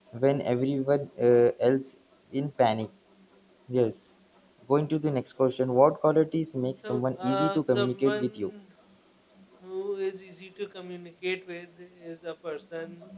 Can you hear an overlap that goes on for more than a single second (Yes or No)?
Yes